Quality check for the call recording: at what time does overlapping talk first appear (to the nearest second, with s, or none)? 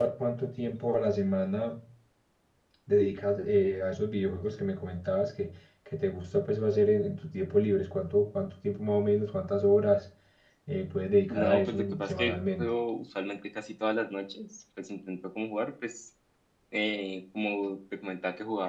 11 s